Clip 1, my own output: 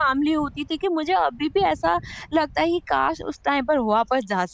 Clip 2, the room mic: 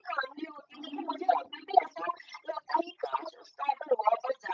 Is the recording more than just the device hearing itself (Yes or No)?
Yes